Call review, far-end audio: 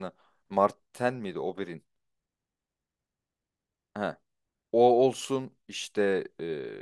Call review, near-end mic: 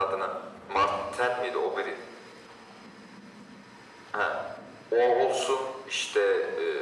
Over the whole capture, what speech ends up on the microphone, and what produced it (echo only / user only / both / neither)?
echo only